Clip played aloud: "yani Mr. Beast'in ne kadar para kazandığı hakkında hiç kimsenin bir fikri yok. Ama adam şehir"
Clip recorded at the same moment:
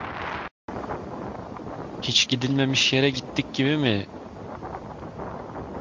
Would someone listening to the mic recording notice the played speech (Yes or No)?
No